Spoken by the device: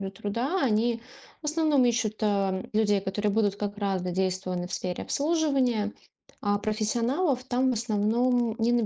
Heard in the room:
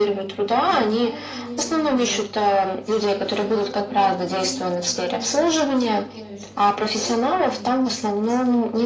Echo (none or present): present